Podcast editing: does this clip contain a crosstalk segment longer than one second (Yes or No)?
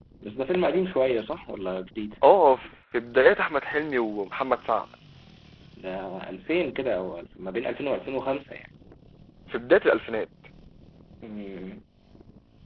No